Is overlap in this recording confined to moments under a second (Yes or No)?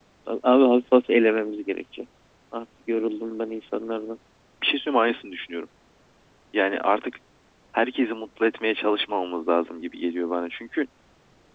Yes